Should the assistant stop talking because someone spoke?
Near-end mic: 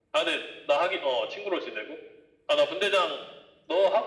No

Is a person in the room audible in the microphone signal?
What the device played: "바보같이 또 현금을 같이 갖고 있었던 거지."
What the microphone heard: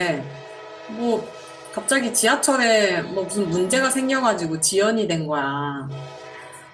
Yes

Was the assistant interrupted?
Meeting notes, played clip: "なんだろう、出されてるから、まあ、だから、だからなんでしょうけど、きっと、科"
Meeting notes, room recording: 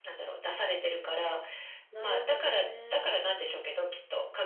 Yes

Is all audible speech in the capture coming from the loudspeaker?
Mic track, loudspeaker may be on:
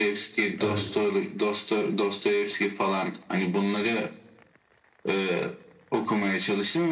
No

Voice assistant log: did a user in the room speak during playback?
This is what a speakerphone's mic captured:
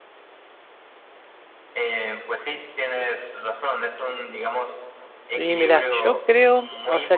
Yes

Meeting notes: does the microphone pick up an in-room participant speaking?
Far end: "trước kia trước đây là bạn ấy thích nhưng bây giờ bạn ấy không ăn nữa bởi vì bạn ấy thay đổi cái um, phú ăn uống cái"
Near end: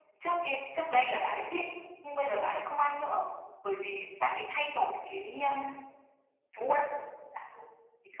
No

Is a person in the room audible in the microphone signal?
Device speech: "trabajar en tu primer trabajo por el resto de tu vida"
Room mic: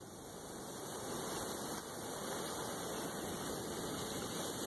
No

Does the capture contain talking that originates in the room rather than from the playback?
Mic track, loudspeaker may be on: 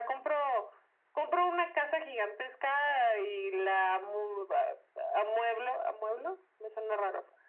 No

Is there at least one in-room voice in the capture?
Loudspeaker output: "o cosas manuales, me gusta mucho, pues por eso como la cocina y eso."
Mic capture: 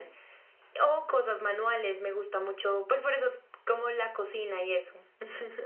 No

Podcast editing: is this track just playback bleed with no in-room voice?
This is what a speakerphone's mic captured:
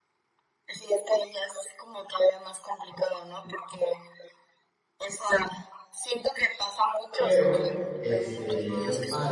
No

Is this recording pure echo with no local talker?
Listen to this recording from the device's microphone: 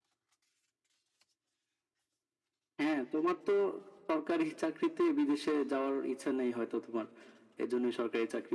Yes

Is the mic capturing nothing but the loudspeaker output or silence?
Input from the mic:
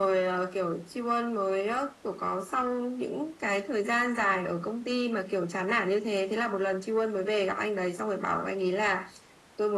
Yes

